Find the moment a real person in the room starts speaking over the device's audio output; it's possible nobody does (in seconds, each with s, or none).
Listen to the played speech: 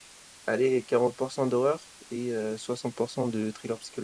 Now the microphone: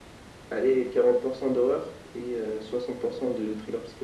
none